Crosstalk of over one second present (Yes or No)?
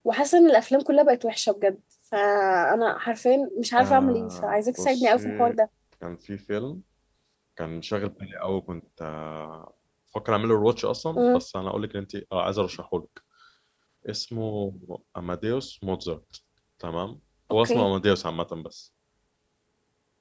Yes